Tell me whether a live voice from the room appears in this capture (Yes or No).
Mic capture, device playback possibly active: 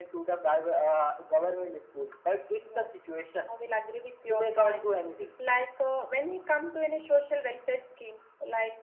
Yes